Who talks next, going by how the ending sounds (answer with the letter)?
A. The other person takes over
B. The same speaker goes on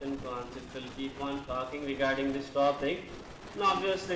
B